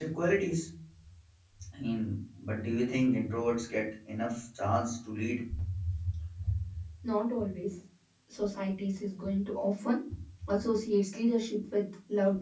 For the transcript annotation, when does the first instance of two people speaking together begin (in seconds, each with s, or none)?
none